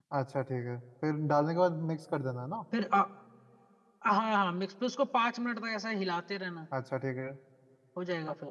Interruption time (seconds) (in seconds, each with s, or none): none